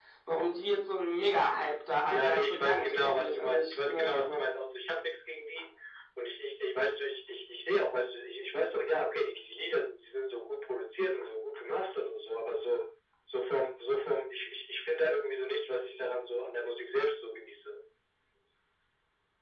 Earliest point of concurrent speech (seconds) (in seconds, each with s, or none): 2.1 s